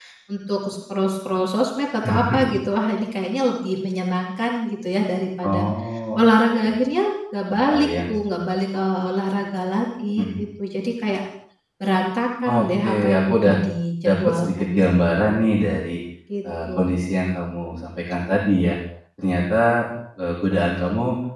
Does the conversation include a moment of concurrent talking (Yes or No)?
Yes